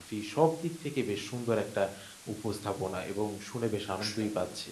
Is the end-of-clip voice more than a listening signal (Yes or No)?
Yes